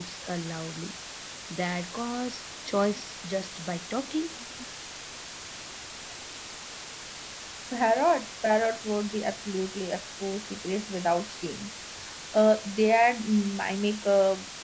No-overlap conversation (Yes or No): Yes